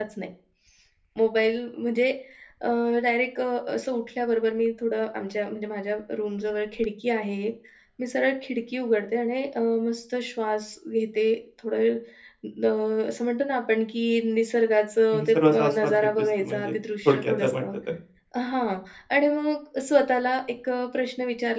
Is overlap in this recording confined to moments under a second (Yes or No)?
No